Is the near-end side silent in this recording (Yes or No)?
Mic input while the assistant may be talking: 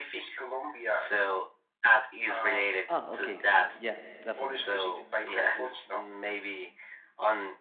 No